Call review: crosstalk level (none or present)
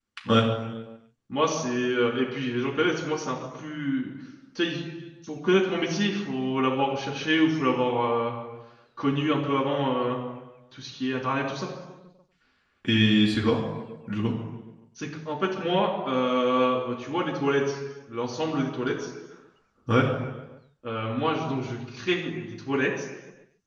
none